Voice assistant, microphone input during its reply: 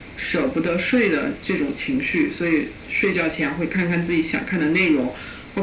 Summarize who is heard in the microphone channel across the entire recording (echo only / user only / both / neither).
echo only